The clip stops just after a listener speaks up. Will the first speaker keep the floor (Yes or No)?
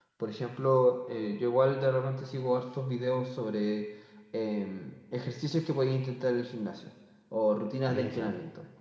Yes